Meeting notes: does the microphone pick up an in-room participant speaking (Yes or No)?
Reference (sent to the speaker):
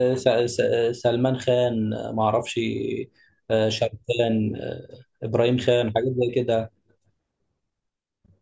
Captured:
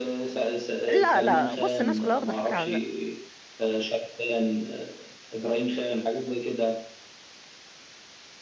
Yes